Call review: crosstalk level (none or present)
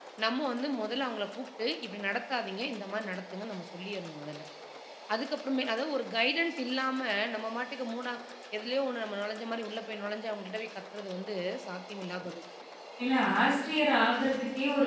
none